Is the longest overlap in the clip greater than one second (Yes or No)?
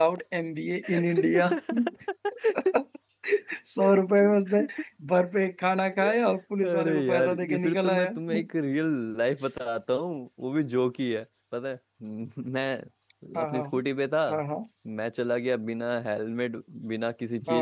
Yes